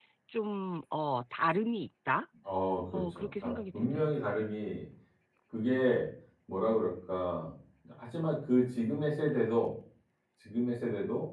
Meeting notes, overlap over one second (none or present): present